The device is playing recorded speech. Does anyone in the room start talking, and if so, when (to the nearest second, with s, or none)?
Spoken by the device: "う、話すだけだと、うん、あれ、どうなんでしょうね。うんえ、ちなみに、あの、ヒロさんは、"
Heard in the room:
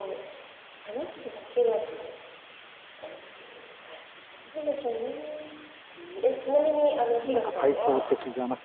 7 s